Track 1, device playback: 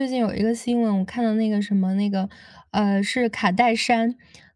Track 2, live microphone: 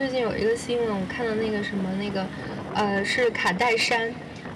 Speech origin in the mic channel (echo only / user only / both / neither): echo only